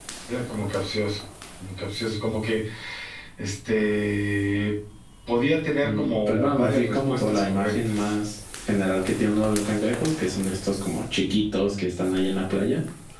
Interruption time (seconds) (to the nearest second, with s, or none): 6 s